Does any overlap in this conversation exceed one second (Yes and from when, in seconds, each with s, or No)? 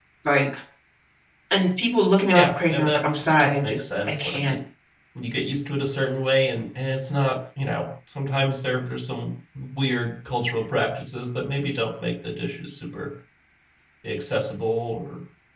Yes, from 2.3 s